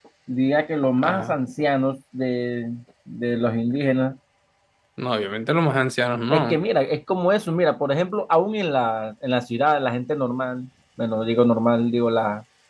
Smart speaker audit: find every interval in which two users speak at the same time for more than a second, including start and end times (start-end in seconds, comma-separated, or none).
none